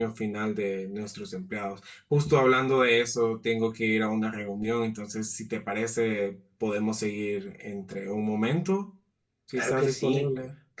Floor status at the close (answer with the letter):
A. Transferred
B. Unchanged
A